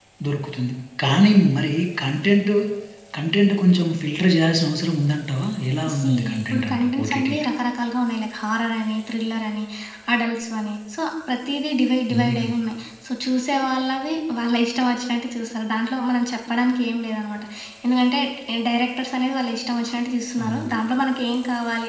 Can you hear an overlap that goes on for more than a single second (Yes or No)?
Yes